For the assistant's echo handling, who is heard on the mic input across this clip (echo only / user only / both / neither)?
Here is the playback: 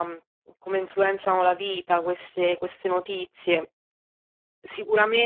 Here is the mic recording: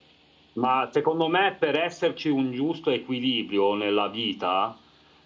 user only